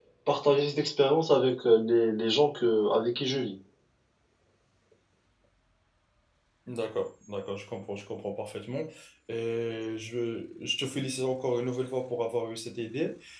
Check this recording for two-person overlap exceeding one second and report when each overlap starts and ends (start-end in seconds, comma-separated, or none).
none